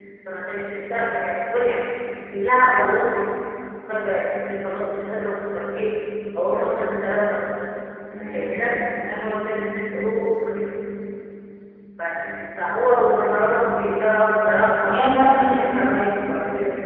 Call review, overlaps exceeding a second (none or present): none